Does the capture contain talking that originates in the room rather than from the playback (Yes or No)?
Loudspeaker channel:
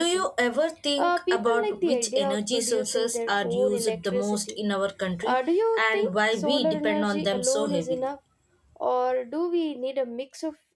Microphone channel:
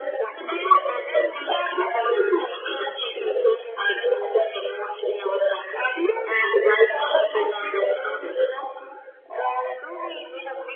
No